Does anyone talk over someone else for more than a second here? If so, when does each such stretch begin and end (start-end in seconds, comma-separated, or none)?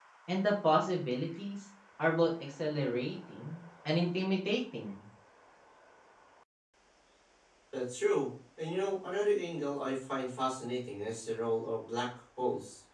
none